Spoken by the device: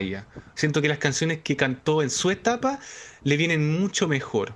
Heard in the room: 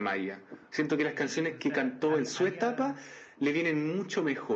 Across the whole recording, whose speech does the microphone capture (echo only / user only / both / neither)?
both